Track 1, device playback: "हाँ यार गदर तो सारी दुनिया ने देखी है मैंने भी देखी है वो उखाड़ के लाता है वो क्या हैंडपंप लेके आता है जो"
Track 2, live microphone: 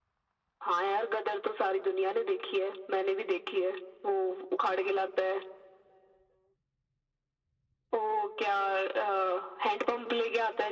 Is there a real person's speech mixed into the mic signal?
No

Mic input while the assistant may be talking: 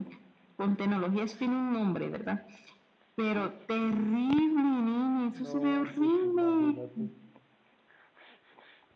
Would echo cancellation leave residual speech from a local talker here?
Yes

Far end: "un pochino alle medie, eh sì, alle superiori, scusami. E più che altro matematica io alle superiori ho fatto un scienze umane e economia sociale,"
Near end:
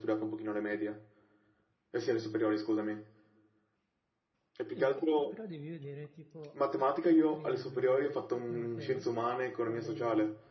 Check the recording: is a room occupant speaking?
Yes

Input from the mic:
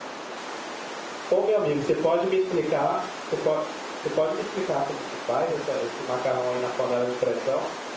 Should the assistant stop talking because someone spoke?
Yes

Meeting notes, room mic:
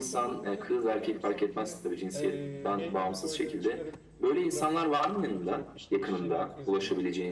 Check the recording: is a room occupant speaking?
Yes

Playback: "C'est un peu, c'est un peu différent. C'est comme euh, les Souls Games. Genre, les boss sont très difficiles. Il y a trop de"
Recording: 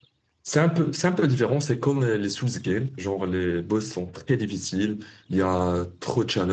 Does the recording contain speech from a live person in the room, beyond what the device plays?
No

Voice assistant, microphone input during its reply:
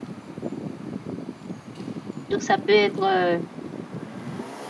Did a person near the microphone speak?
Yes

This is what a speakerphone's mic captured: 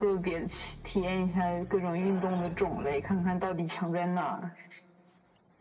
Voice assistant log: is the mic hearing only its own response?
Yes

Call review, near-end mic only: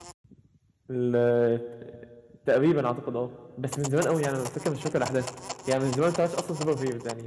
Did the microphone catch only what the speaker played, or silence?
No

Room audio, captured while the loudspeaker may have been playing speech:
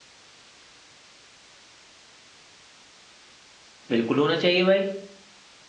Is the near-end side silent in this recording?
No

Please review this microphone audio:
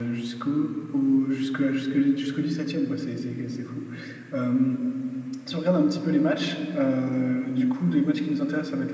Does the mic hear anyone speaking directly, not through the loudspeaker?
Yes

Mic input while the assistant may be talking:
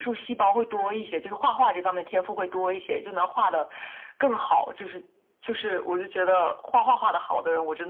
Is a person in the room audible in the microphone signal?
No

